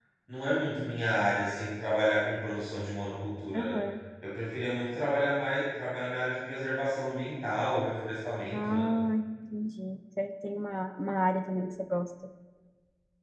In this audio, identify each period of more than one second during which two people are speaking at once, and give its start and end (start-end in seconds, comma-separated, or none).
none